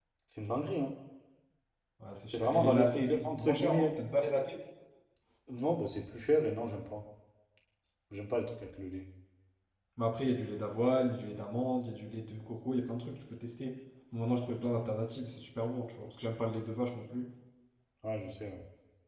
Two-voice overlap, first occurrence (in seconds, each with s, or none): 2.3 s